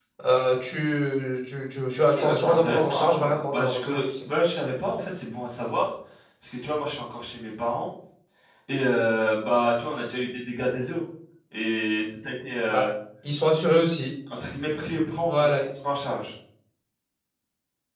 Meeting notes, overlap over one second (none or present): present